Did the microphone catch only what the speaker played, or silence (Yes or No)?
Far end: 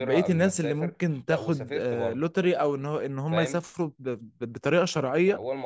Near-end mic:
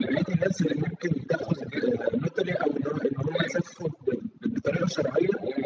Yes